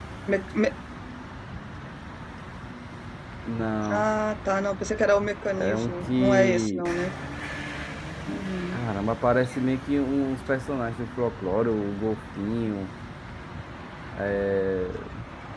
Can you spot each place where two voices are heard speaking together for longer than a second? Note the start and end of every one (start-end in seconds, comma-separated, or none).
5.6-6.8